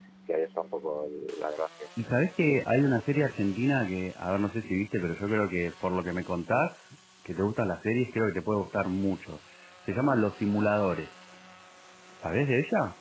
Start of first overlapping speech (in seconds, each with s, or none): none